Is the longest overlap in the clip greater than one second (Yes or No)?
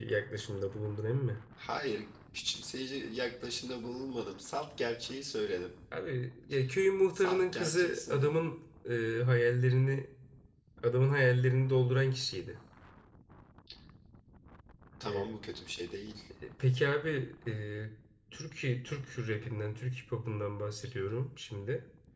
Yes